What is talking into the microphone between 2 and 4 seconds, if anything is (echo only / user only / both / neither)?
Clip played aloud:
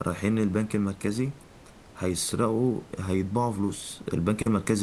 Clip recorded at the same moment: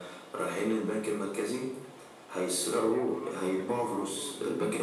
both